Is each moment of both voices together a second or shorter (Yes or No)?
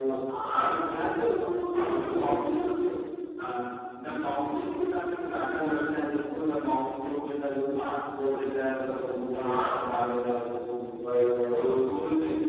No